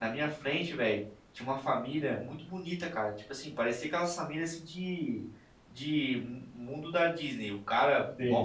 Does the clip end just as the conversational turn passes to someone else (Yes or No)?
No